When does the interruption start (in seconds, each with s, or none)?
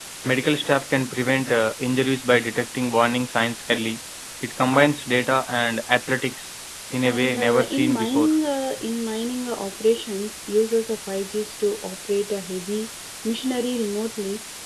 7.0 s